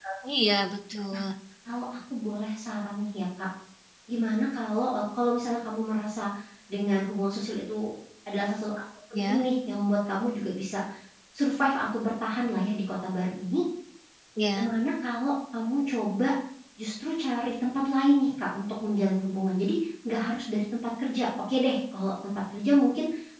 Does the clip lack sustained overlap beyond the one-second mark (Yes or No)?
Yes